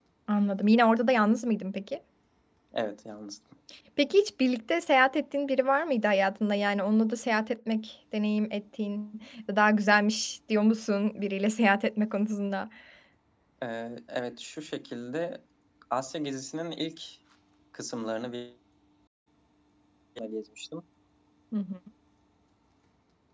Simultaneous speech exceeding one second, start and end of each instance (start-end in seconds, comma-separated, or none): none